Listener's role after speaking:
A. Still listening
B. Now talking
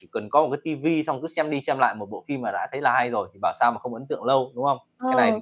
B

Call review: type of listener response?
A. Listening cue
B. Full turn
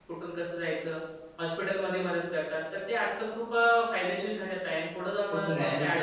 B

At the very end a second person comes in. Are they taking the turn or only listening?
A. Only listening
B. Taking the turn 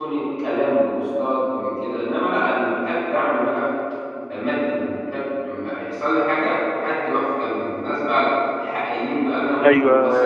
B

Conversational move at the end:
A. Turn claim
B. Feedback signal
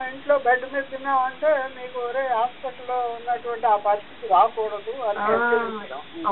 A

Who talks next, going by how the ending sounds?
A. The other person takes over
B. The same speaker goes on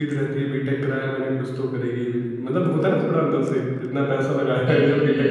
A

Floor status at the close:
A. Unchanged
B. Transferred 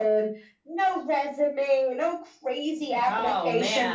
B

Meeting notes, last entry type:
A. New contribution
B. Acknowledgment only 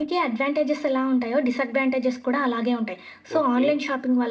B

